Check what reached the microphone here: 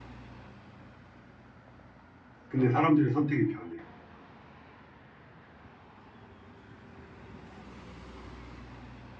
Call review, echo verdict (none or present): none